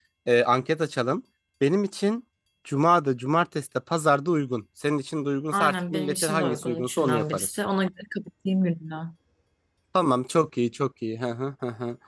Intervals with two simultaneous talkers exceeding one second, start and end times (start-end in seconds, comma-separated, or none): 5.5-7.6